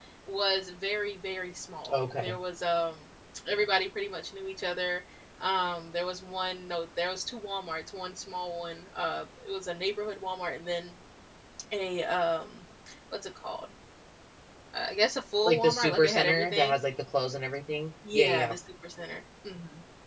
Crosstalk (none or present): present